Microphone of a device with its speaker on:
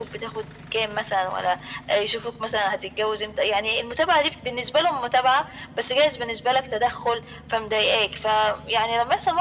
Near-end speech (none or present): none